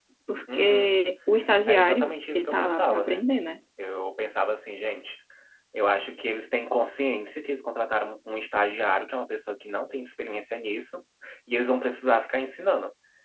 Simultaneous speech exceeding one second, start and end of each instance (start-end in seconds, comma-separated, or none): 1.7-3.3